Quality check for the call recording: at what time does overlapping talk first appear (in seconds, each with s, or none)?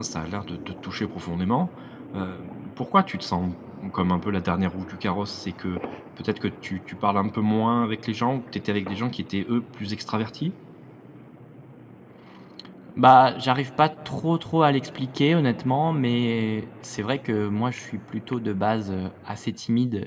none